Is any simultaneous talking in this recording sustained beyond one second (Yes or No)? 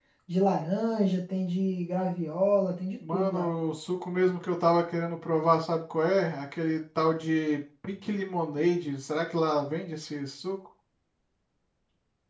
No